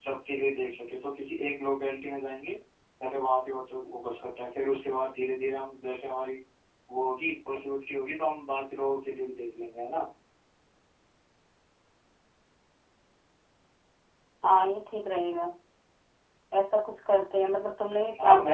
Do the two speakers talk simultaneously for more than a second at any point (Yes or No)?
No